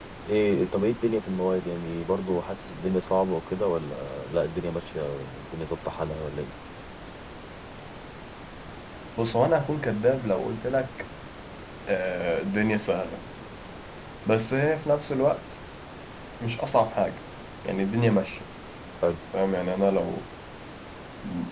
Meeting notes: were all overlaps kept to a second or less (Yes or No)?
Yes